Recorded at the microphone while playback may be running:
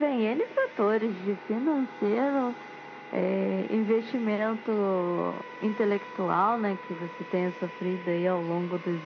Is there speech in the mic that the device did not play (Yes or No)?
No